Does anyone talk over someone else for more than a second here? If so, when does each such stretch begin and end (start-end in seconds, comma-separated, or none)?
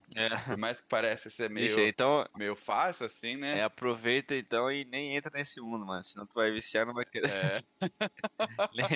none